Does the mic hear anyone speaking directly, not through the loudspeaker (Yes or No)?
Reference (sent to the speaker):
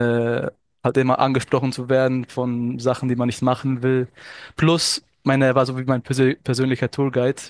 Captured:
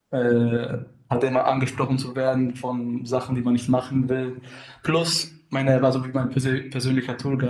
No